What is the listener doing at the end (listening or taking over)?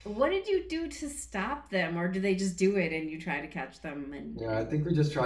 taking over